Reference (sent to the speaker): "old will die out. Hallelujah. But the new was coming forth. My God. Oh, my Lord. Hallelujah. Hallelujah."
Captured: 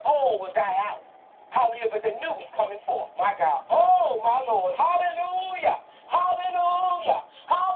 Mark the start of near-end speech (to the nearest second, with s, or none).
none